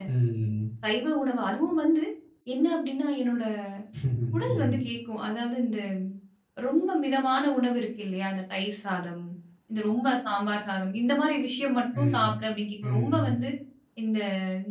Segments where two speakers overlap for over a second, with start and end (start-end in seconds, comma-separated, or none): none